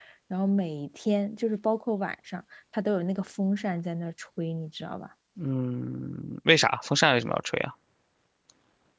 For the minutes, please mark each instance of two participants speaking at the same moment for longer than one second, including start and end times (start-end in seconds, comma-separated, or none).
none